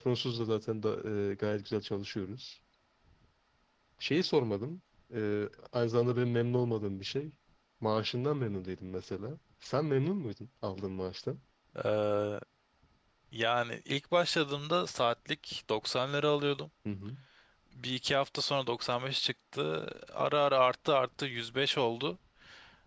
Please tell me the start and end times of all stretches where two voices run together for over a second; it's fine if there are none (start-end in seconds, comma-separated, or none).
none